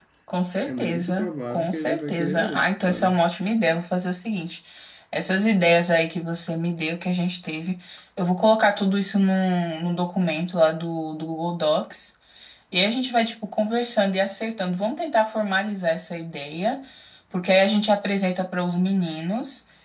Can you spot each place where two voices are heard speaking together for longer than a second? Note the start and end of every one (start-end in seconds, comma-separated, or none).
0.6-3.2